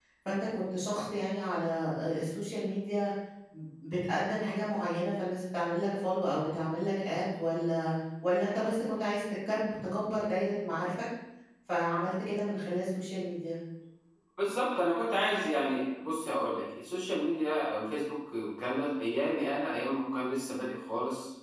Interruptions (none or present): none